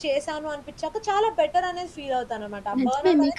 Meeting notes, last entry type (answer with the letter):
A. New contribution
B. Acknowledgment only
A